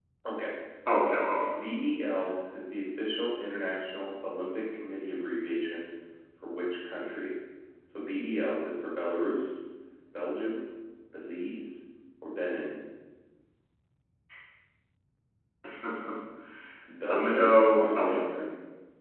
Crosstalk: present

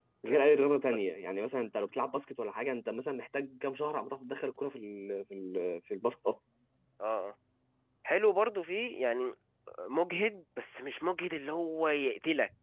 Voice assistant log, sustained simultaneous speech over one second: none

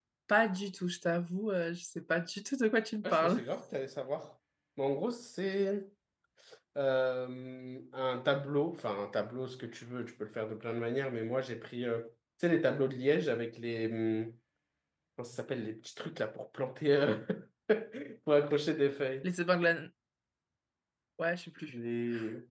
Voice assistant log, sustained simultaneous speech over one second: none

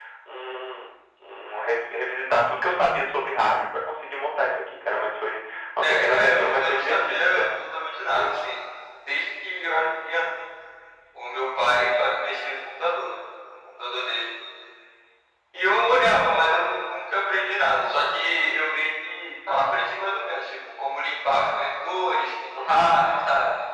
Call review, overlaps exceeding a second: present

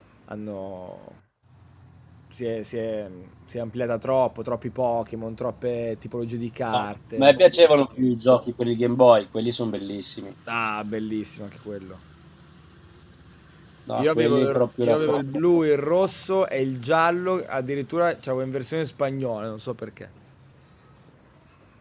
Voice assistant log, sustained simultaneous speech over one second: present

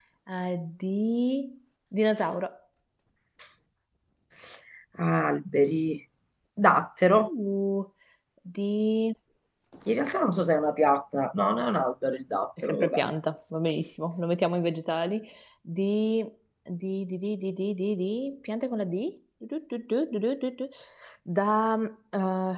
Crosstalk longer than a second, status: none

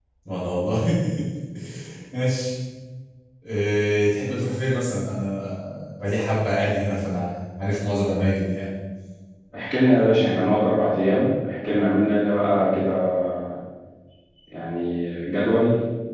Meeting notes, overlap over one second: none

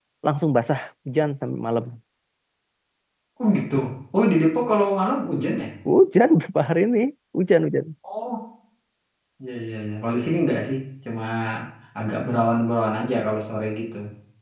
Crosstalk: none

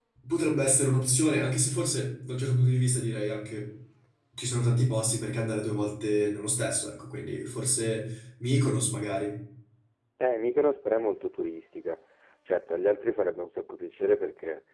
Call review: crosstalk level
none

